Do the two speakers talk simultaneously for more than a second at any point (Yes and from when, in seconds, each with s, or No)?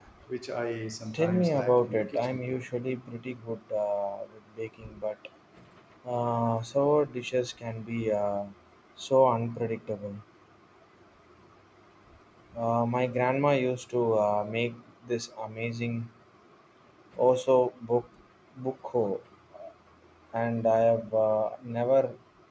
Yes, from 1.1 s